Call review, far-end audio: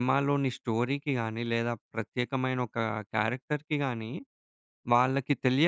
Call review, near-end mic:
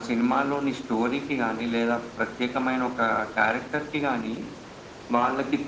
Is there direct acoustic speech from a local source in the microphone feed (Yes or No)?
No